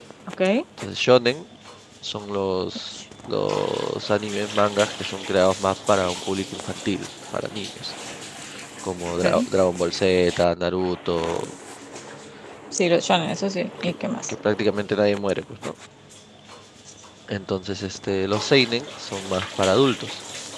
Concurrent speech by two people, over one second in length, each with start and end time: none

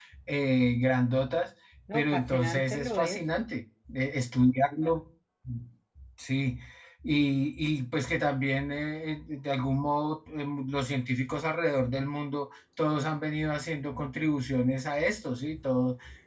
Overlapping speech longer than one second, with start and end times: 1.9-3.2

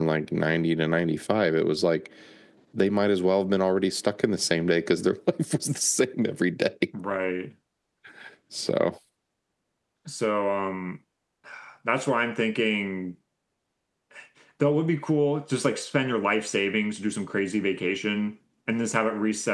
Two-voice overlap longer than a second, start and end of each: none

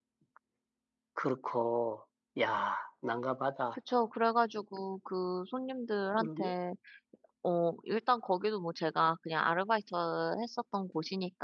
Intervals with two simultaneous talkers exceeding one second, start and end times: none

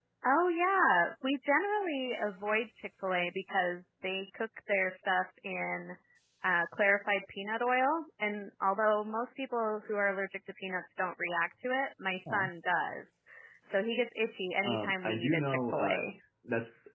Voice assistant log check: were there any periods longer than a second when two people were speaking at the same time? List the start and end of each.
14.6-16.0

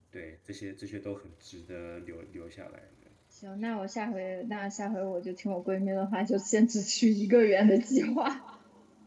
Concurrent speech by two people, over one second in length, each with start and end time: none

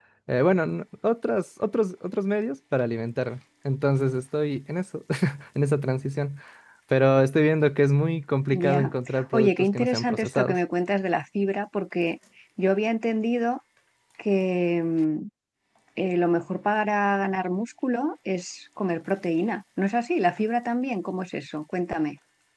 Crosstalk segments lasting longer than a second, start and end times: 9.3-10.6

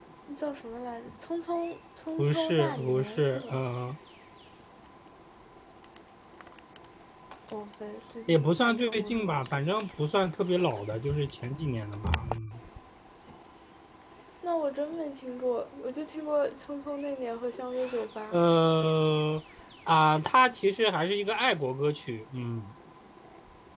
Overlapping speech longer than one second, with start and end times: 2.2-3.6, 8.3-9.6

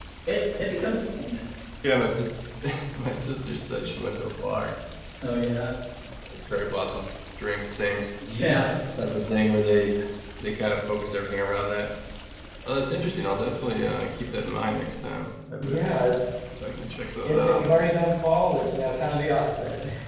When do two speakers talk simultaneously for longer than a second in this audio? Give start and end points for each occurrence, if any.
none

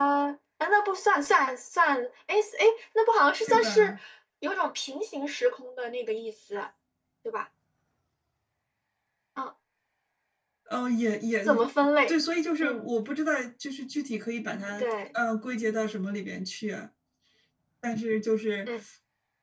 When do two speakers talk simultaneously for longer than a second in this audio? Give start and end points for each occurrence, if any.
none

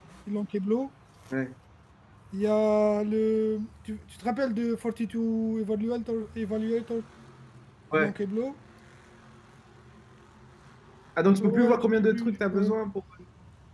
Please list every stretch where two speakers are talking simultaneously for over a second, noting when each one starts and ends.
11.4-12.7

